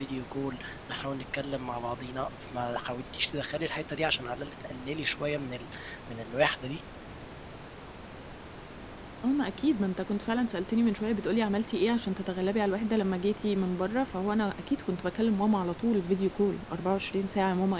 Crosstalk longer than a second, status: none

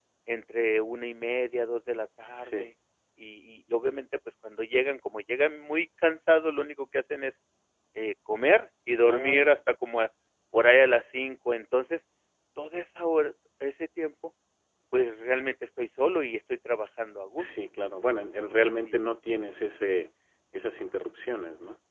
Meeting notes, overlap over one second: none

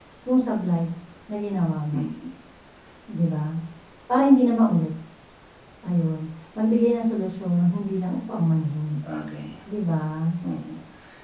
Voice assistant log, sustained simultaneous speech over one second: none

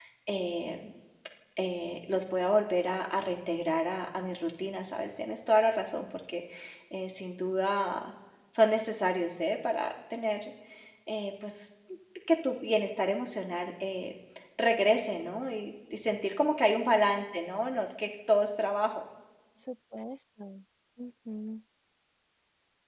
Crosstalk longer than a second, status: none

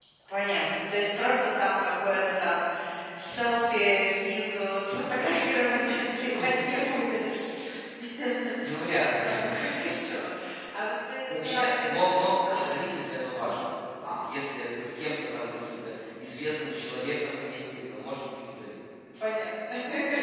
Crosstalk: present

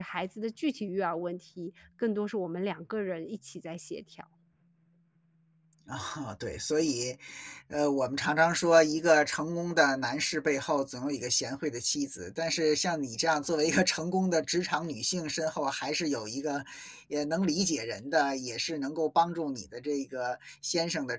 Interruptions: none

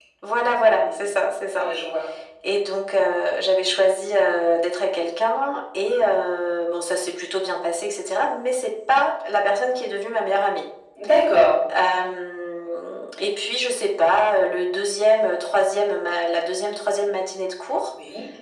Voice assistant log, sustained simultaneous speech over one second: none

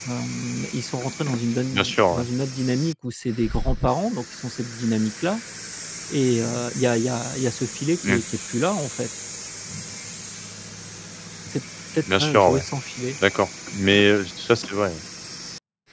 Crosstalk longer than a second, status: none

